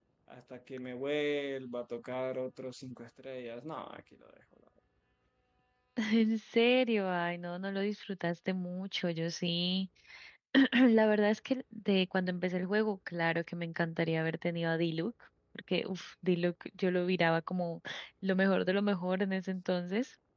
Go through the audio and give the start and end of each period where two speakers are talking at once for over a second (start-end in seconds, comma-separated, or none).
none